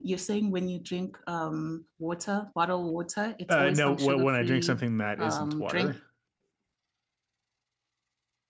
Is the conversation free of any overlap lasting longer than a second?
No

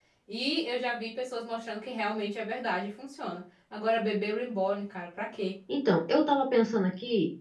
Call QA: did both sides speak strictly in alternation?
Yes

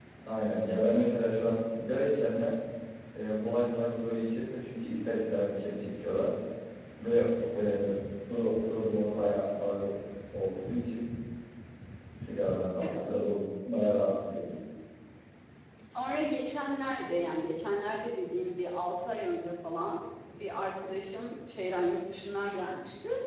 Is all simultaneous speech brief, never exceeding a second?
Yes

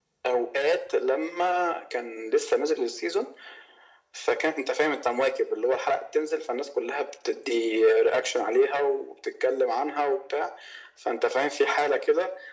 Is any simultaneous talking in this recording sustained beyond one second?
No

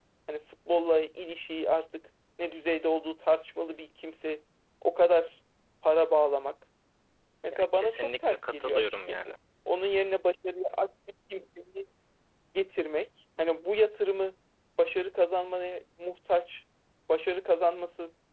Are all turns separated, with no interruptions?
No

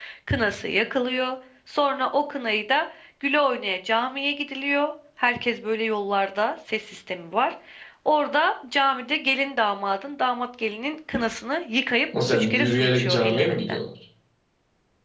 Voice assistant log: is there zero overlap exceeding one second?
No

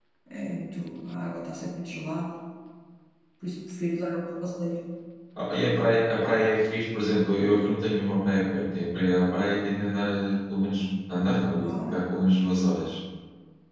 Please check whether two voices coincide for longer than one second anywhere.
No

